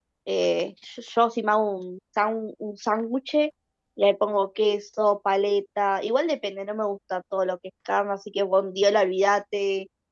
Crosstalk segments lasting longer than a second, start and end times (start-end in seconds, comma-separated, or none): none